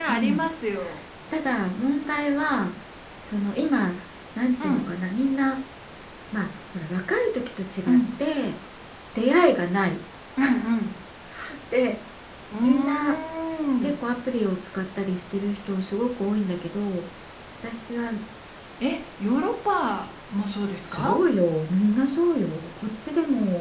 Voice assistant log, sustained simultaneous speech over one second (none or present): none